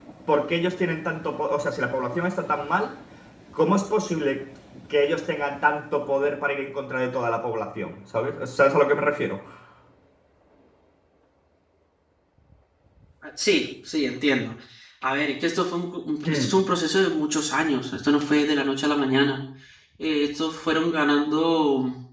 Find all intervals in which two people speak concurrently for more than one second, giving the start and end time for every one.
none

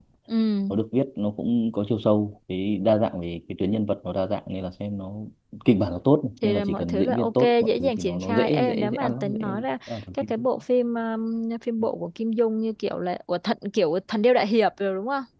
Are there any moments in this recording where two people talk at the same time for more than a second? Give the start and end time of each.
6.4-9.4

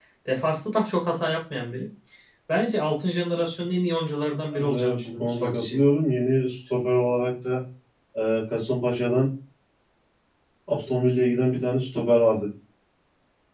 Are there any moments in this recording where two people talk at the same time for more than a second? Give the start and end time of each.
4.5-5.8

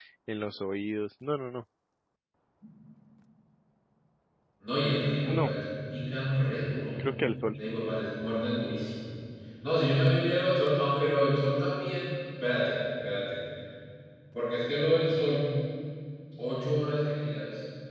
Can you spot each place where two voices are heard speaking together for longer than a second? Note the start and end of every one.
none

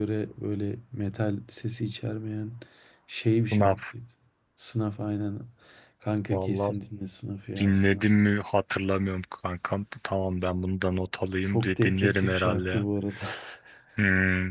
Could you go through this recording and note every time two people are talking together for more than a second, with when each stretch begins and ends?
11.4-12.9

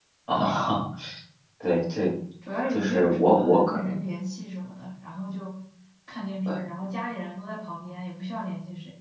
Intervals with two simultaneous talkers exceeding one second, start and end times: 2.7-4.0

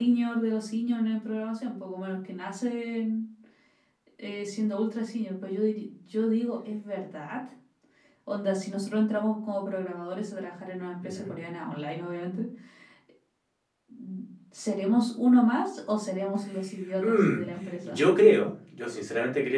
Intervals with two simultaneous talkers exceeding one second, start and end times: none

